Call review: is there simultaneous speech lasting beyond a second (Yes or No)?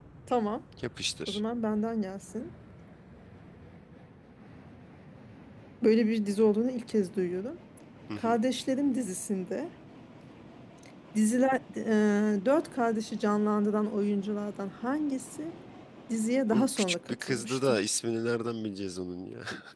Yes